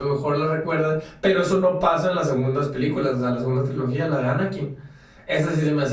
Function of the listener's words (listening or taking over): listening